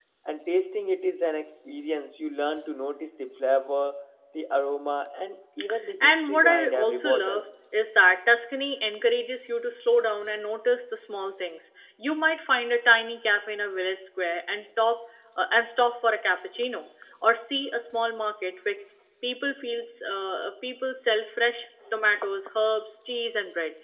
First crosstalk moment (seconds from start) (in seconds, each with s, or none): 6.0 s